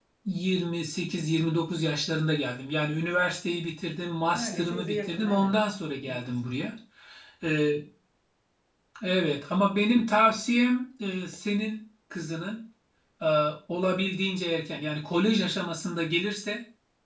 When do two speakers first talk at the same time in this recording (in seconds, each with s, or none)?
4.3 s